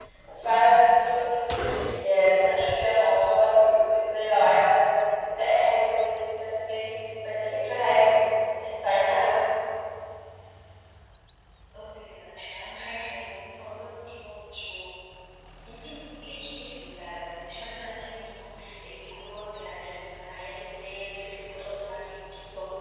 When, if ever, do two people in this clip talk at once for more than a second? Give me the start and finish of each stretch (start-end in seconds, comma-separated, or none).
none